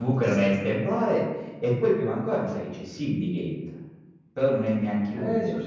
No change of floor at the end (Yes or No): No